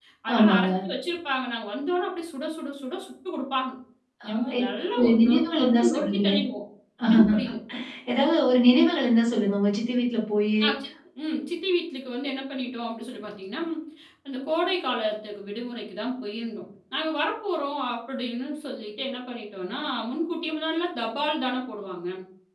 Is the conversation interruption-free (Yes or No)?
No